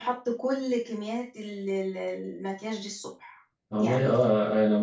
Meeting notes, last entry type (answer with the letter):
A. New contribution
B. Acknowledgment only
A